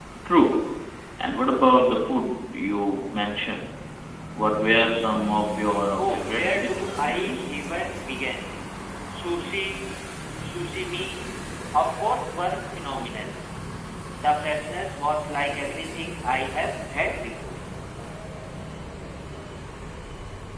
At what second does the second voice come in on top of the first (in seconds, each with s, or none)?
6.0 s